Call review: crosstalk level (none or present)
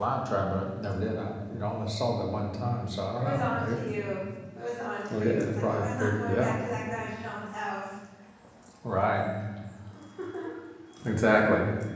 present